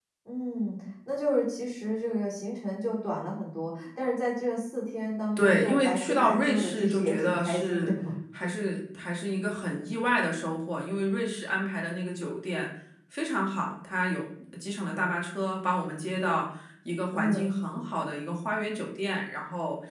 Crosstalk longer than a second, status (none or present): present